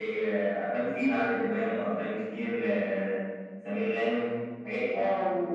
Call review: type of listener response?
taking over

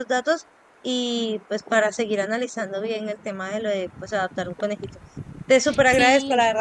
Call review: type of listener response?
listening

